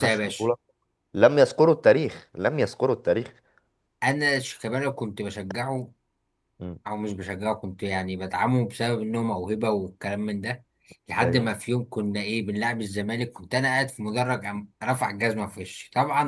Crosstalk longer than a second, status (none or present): none